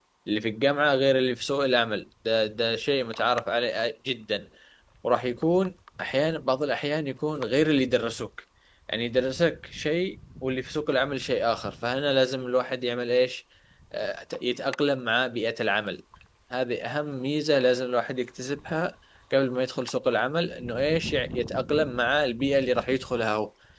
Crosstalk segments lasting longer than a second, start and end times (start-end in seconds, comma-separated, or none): none